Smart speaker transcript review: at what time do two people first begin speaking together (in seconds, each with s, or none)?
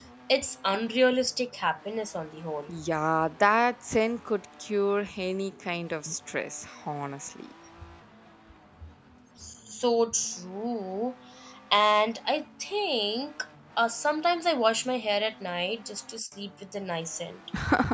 none